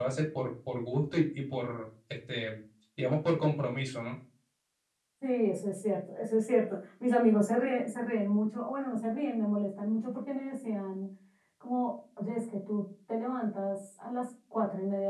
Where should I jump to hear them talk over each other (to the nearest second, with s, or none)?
none